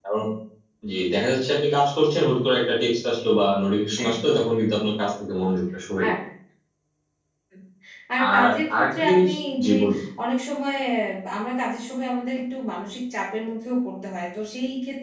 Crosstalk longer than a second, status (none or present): present